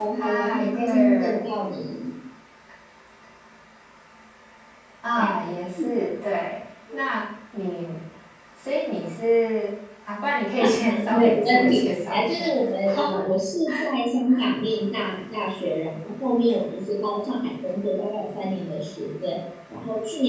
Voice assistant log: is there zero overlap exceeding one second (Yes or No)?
No